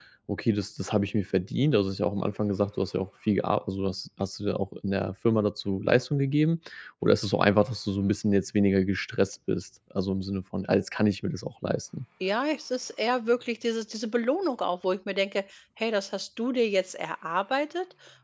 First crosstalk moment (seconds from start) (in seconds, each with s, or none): none